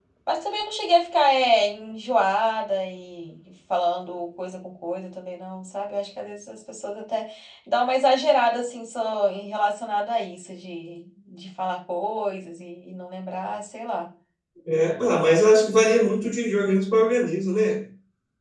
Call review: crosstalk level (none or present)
none